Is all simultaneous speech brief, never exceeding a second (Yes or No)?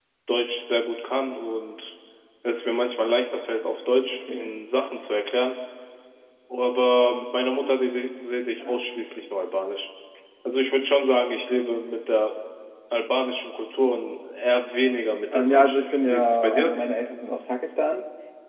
No